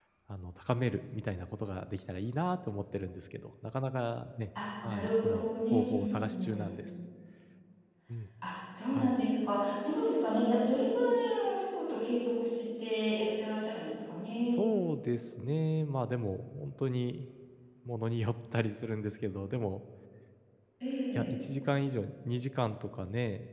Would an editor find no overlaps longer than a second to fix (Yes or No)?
No